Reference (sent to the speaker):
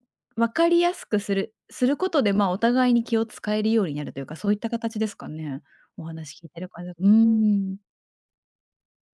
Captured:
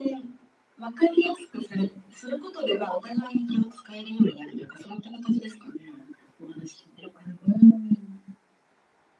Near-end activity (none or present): none